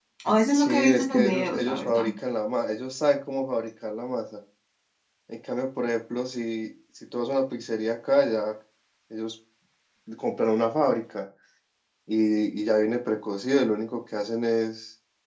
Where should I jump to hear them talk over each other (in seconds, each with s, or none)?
0.5 s